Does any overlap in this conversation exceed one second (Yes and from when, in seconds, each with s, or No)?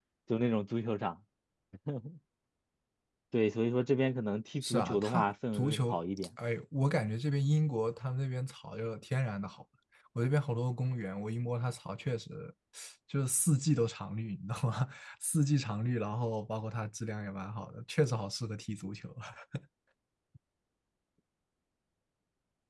Yes, from 4.6 s